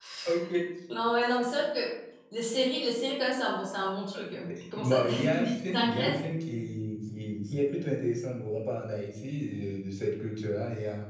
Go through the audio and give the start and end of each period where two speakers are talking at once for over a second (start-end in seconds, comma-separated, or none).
4.8-6.2